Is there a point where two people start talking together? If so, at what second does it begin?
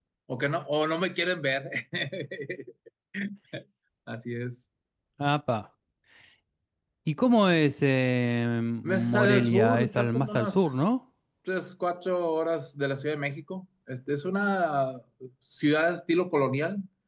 9 s

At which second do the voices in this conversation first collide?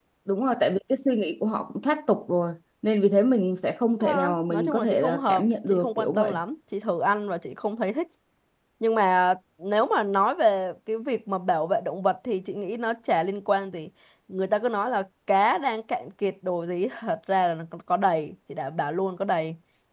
4 s

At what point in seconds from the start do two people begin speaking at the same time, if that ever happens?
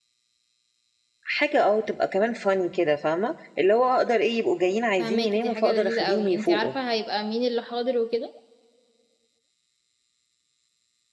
5 s

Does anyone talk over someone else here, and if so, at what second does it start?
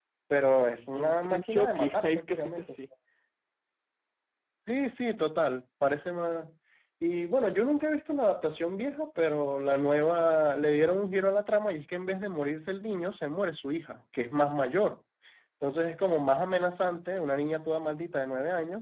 1 s

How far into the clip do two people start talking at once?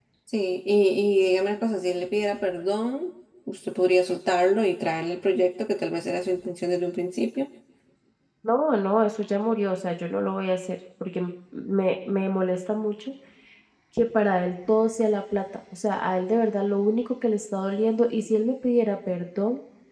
none

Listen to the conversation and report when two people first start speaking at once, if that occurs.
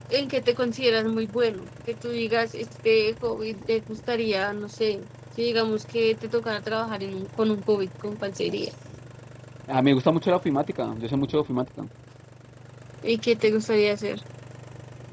none

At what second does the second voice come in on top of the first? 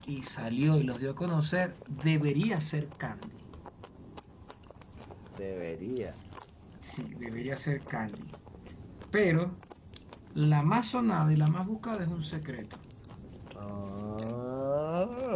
none

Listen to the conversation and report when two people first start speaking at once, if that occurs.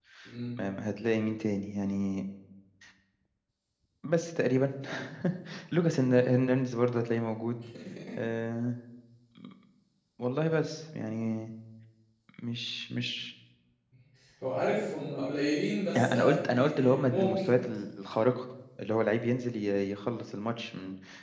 16 s

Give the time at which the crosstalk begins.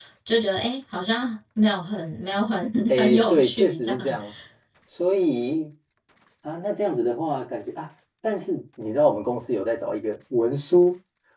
3 s

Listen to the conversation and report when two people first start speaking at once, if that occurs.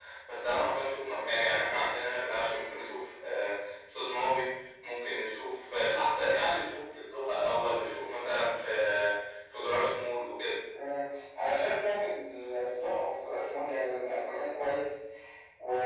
none

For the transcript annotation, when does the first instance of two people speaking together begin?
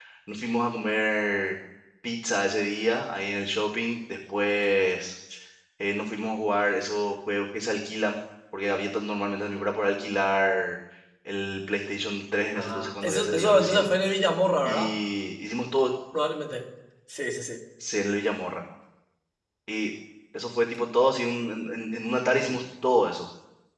13 s

